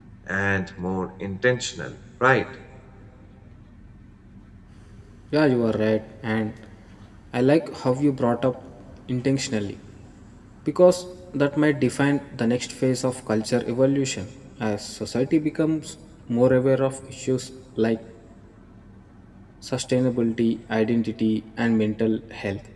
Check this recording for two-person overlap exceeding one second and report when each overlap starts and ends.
none

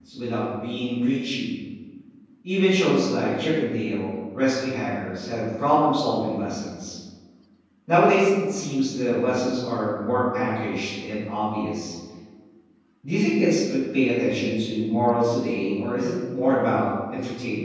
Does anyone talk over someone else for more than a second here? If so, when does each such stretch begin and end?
none

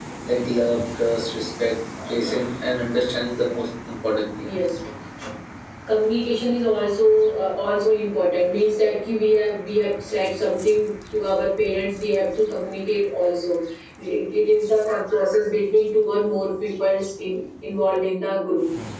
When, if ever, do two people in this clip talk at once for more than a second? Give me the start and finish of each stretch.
none

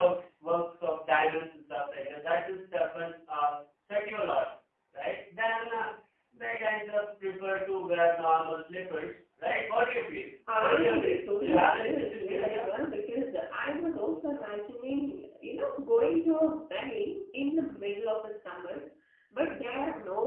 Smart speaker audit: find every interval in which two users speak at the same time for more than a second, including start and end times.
10.6-12.6

